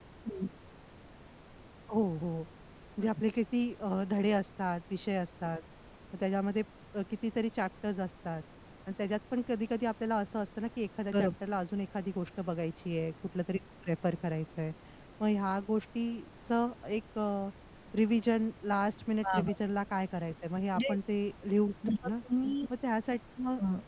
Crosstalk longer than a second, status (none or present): none